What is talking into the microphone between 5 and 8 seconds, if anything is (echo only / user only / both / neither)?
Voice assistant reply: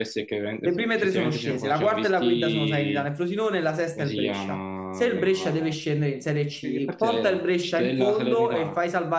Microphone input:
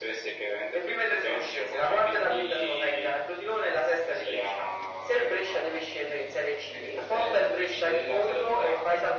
echo only